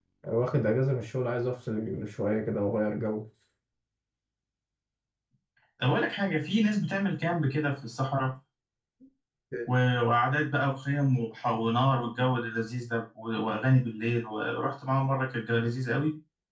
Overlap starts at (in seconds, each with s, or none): none